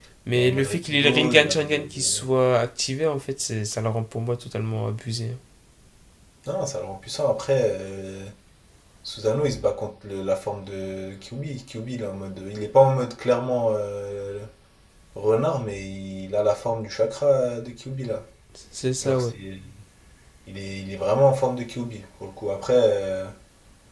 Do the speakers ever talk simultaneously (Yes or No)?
Yes